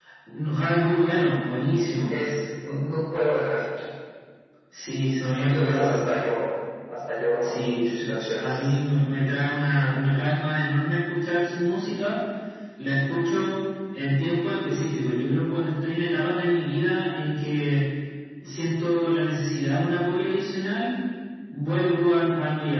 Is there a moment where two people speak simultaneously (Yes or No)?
Yes